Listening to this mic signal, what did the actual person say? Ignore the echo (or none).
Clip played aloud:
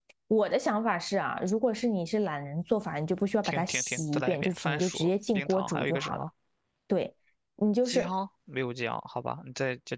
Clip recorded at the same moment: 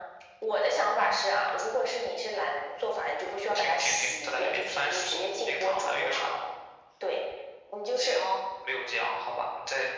none